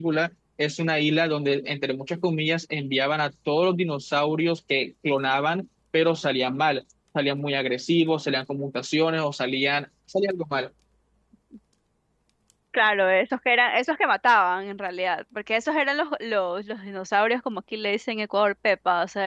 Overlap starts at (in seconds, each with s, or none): none